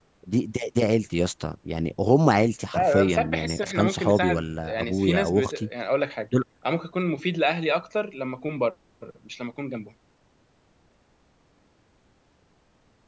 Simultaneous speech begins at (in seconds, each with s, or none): 2.7 s